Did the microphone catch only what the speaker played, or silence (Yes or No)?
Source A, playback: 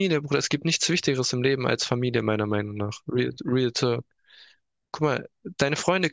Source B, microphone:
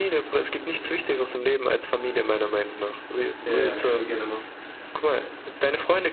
No